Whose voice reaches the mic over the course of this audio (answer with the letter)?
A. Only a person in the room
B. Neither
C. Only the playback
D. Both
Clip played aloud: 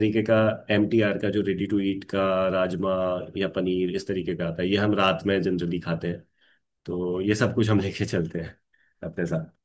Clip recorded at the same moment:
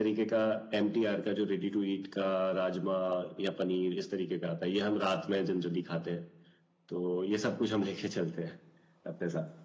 C